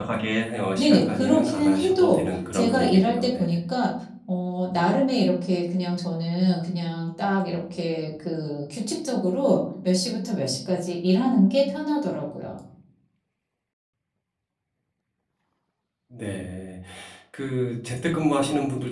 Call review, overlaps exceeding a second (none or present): present